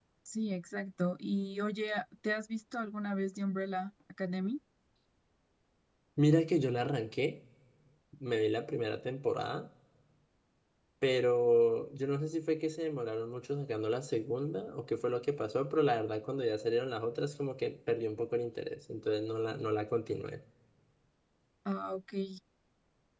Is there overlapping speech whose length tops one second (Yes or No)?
No